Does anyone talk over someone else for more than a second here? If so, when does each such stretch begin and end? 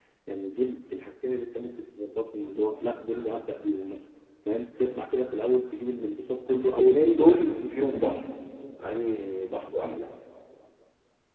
6.5-7.9

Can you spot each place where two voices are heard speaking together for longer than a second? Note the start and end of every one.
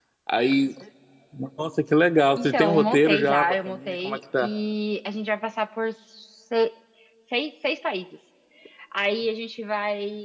2.3-4.5

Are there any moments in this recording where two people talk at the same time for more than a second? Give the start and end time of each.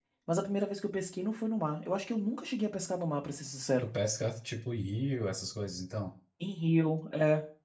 none

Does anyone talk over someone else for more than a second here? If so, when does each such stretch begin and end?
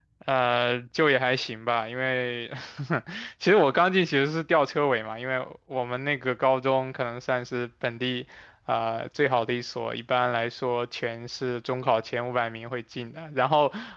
none

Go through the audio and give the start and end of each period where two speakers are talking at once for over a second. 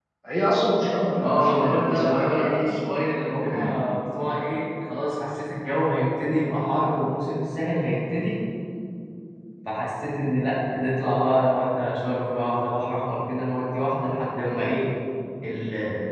1.2-2.8

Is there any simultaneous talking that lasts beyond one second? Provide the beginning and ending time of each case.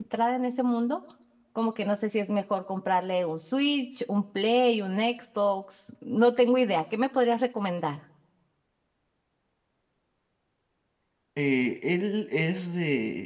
none

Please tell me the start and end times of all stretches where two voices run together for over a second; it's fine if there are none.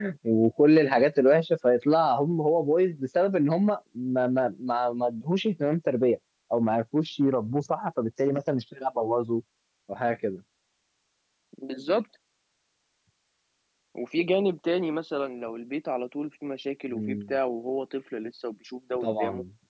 none

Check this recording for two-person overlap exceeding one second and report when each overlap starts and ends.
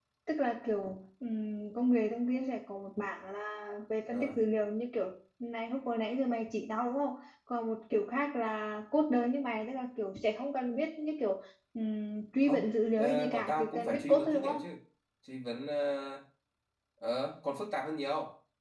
12.4-14.6

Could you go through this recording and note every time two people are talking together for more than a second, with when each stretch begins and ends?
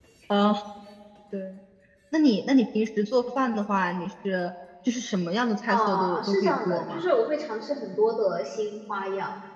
5.7-7.1

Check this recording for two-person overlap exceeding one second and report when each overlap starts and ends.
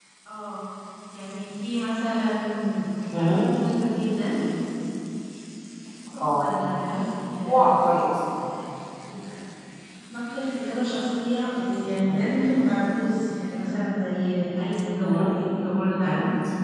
none

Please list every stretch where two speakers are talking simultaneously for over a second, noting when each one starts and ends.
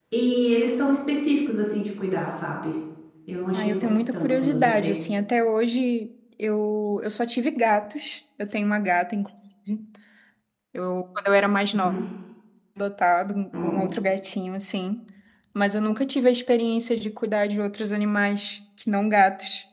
3.5-4.9

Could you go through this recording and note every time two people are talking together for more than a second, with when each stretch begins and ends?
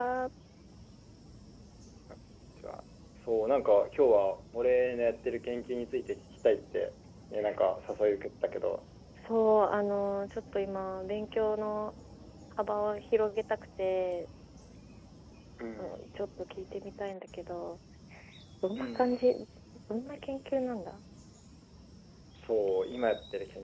none

